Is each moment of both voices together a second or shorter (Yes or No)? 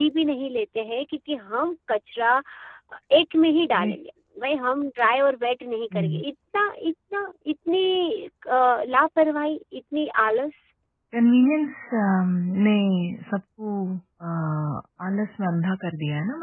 Yes